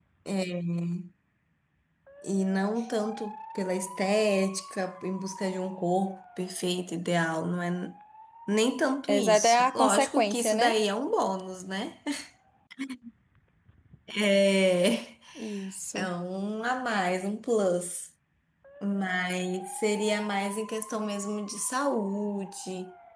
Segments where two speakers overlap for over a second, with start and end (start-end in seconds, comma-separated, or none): 9.1-10.8